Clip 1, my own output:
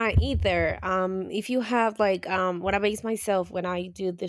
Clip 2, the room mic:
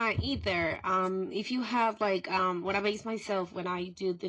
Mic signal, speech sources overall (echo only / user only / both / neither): echo only